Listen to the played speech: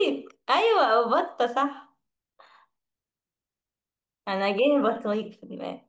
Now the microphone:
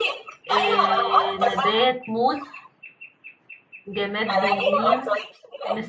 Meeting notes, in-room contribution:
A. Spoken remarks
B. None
A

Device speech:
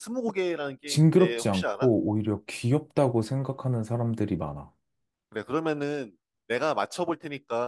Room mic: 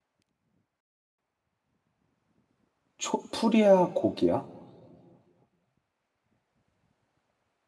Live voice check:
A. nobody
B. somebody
B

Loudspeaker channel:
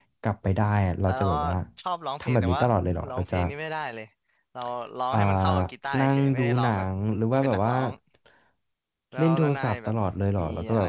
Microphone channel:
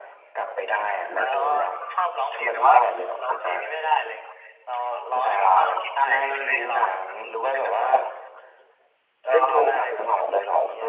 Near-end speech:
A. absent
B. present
A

